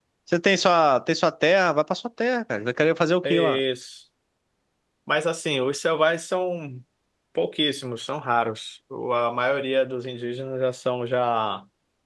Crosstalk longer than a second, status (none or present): none